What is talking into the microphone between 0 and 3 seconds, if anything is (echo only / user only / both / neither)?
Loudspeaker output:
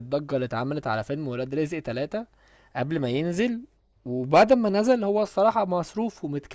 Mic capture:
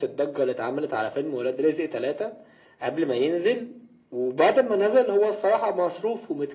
echo only